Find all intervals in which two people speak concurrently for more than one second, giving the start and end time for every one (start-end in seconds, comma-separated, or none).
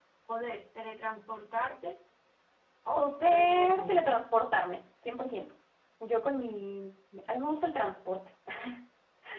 3.0-4.3